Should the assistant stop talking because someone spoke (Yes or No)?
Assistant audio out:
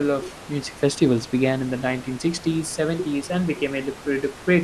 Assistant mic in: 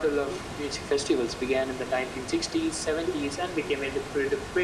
No